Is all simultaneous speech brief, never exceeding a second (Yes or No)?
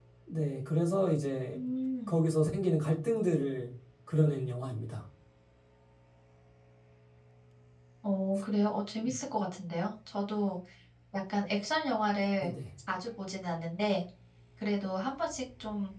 Yes